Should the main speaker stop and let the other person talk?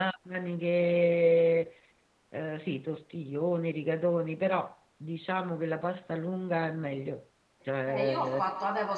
Yes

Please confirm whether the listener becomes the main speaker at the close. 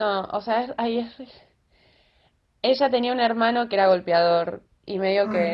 No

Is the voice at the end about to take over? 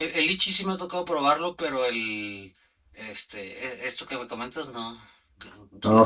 Yes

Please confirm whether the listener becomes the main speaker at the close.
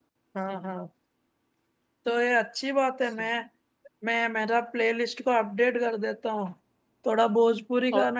Yes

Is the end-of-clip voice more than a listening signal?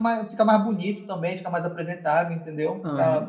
Yes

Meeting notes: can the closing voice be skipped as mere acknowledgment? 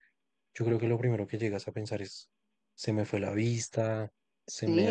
No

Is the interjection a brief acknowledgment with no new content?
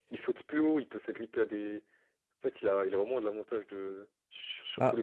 Yes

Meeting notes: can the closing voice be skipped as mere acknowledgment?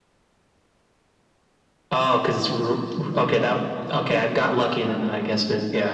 No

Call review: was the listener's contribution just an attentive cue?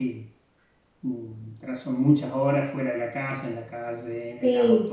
No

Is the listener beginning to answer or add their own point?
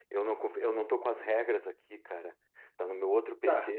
Yes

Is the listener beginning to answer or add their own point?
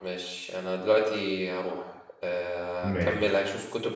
No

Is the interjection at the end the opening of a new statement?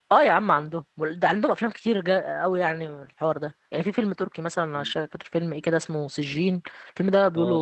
Yes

